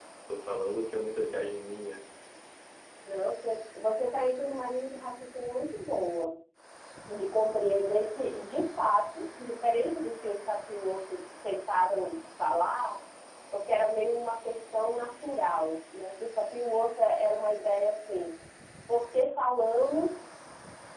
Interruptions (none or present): none